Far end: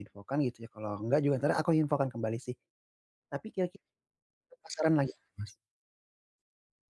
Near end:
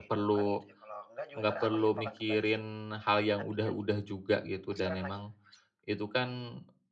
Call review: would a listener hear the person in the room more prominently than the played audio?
Yes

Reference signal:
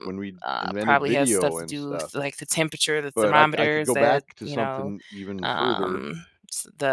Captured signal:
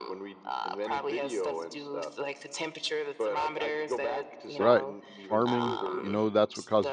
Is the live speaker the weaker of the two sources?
No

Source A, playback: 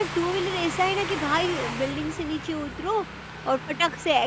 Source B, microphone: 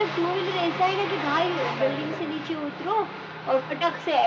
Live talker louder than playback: No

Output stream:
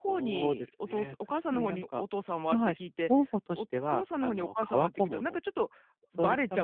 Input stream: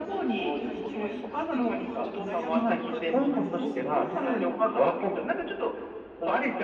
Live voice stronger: No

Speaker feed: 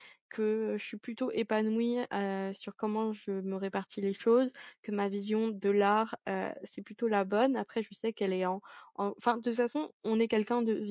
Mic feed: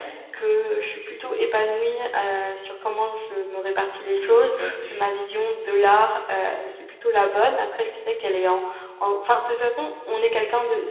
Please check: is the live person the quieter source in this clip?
Yes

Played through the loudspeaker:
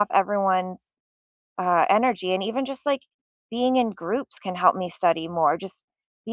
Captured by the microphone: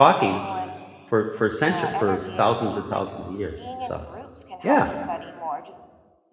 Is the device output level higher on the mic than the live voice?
No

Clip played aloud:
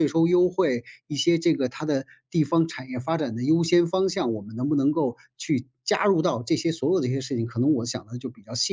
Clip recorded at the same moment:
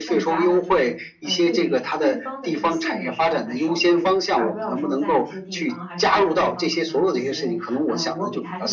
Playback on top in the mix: Yes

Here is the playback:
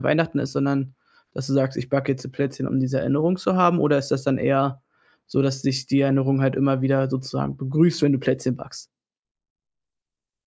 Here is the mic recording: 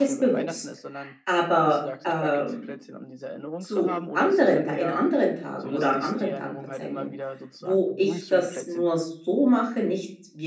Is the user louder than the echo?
Yes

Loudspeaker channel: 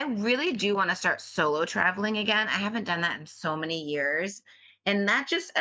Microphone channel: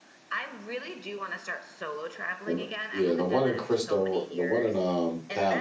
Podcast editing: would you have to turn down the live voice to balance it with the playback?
Yes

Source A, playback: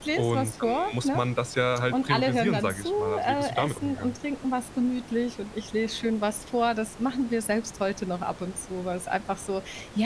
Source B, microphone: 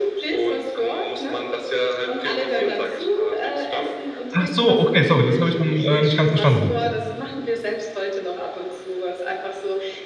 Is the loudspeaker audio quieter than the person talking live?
Yes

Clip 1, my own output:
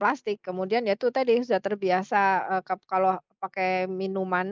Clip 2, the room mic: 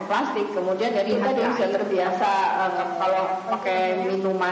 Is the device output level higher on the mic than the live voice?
Yes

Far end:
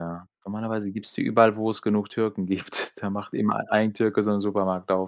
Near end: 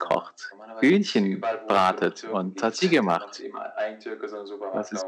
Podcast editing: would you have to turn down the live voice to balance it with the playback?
Yes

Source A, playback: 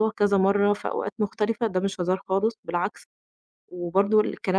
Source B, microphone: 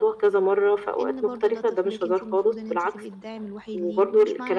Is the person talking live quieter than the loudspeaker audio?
Yes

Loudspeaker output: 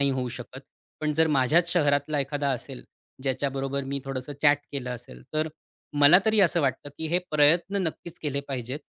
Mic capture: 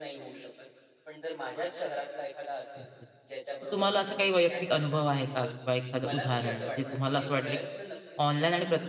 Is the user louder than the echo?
Yes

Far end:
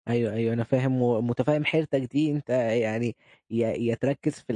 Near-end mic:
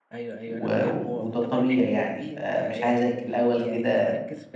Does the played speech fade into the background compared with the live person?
Yes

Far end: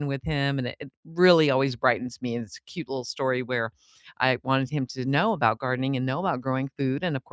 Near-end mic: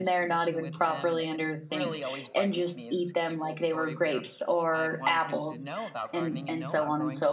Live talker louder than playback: Yes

